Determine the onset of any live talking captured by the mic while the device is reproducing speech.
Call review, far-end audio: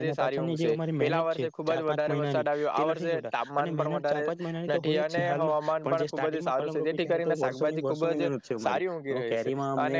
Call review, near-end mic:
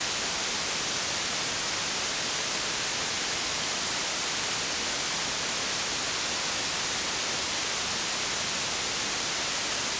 none

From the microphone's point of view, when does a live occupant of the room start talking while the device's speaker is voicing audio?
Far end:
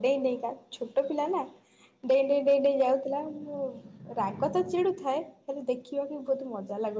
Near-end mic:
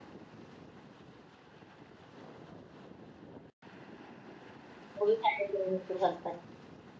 5.0 s

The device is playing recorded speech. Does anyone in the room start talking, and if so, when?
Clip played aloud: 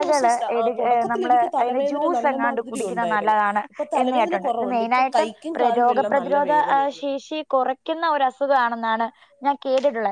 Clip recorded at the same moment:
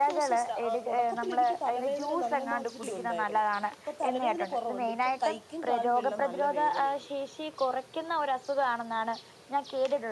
none

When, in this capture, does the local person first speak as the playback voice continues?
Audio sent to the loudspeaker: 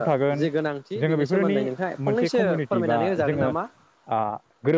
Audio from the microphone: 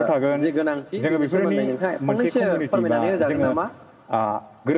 none

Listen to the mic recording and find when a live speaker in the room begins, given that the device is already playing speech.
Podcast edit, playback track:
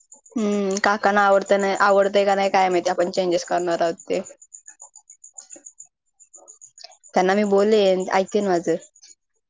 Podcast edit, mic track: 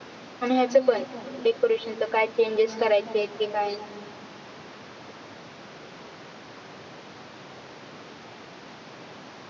0.4 s

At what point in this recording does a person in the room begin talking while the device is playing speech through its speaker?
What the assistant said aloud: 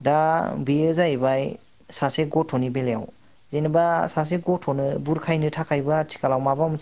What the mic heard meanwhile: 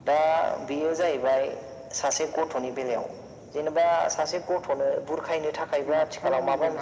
5.9 s

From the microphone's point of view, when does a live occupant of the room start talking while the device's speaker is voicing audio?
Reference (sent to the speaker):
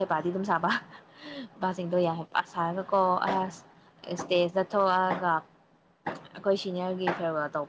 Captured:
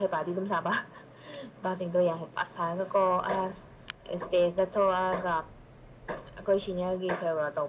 none

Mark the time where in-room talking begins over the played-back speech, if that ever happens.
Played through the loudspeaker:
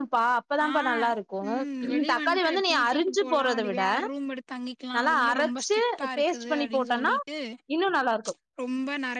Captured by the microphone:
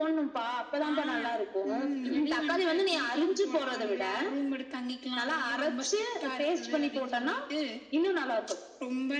none

